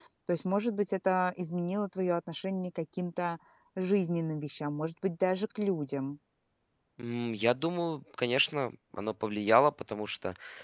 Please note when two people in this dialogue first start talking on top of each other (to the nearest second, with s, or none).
none